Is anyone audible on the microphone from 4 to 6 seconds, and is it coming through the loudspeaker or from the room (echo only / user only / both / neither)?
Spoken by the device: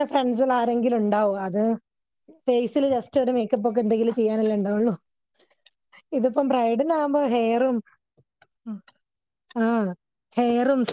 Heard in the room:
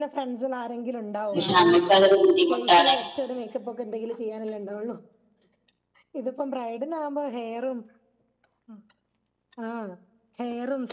echo only